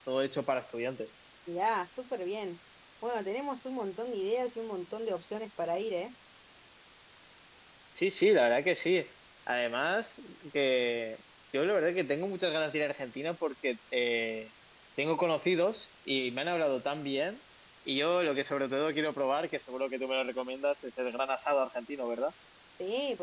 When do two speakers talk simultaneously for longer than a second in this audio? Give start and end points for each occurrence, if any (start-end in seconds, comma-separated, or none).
none